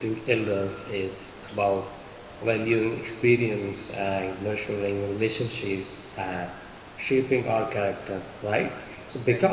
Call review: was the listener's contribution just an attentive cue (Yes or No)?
Yes